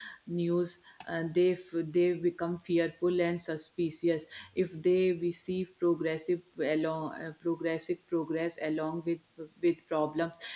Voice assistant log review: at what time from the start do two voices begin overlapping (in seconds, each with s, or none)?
none